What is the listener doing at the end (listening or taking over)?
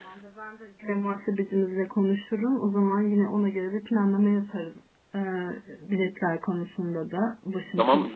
taking over